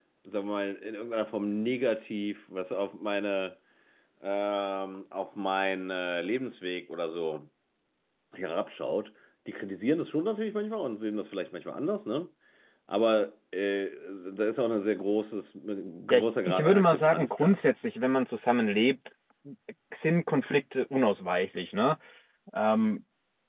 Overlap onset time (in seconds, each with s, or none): 16.1 s